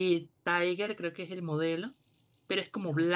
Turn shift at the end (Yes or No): No